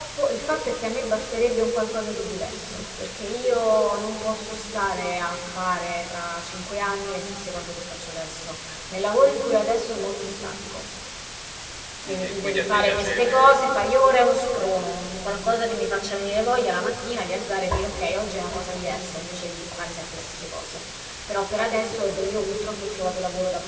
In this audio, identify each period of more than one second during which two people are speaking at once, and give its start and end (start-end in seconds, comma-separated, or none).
12.1-13.9